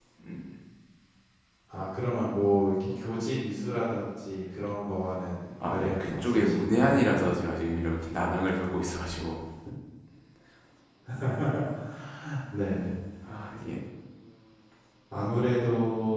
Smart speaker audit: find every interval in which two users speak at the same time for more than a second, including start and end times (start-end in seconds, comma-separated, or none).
5.6-7.0